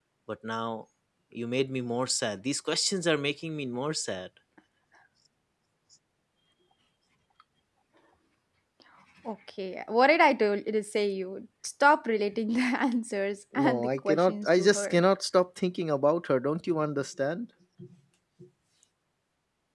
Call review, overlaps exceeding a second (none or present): present